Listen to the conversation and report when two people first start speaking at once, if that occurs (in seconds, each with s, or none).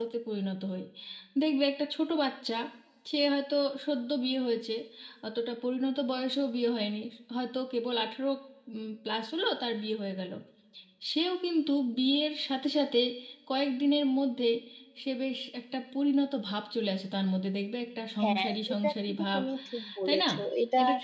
18.2 s